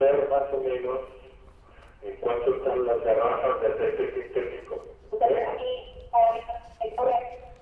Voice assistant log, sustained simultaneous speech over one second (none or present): none